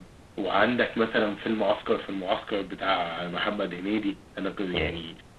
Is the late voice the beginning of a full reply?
No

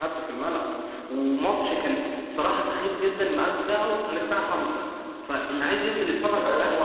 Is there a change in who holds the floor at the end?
No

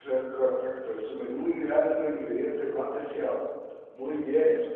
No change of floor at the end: Yes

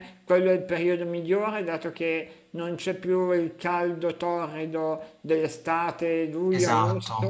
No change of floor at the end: No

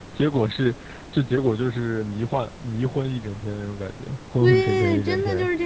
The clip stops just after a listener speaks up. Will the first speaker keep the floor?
No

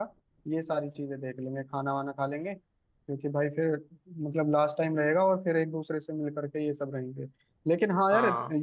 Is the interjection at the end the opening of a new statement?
No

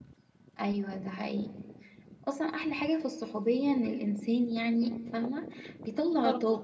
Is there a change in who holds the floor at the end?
No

